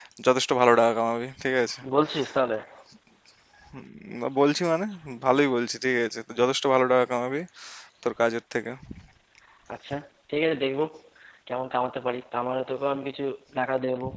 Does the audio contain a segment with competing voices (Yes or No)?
No